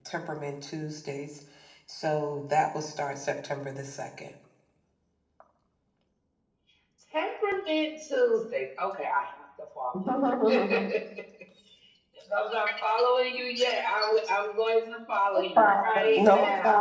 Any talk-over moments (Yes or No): Yes